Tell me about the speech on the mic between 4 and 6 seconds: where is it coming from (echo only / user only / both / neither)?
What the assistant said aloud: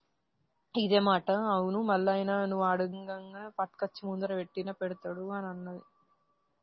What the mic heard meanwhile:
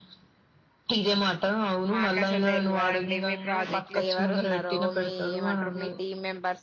both